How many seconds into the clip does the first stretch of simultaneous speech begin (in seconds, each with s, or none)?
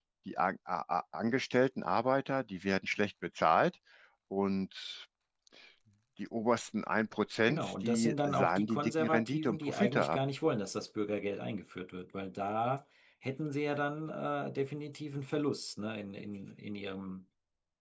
7.5 s